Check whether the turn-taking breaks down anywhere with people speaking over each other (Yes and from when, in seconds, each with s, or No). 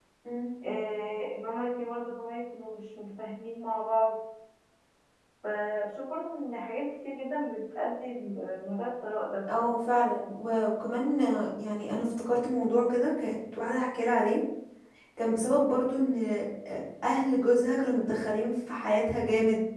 No